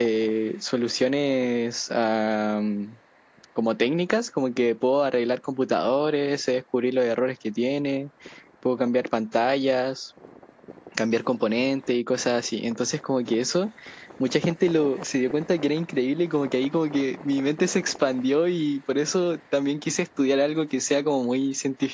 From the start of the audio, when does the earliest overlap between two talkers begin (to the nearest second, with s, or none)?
none